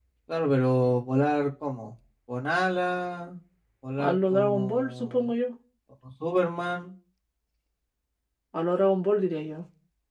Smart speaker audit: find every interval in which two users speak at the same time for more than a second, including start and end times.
4.0-5.3

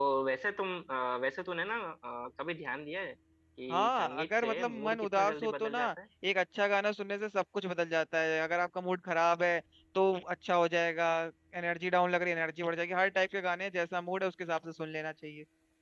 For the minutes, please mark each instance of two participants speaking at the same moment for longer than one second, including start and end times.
3.7-5.8

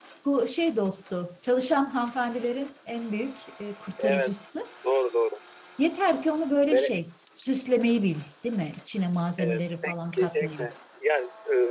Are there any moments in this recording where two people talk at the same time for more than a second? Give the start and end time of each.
9.4-10.7

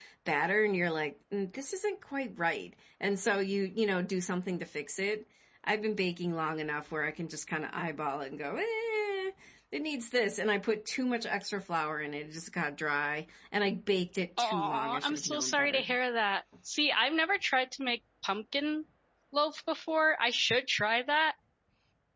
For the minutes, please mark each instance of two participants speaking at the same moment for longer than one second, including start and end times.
14.4-15.8

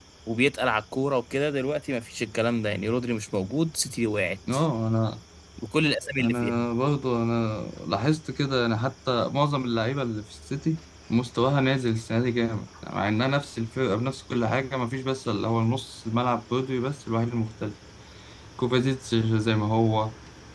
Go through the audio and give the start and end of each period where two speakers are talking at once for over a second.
none

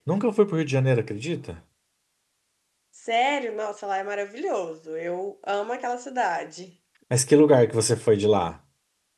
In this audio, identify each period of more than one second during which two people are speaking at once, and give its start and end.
none

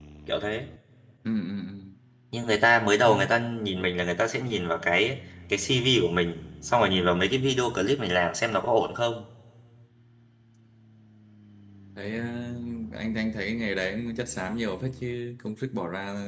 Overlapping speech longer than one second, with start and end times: none

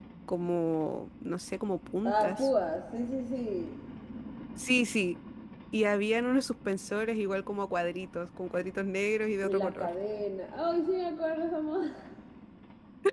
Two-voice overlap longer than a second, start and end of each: none

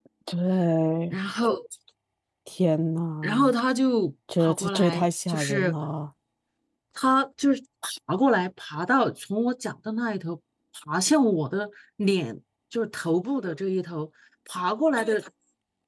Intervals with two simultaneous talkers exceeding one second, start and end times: 4.4-5.7

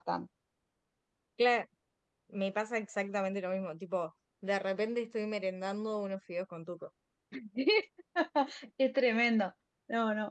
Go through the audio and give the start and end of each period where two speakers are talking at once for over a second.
none

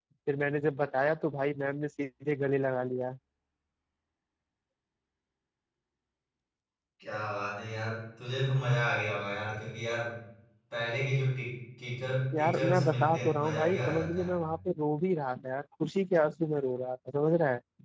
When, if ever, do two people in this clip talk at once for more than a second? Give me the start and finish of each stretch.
12.4-14.4

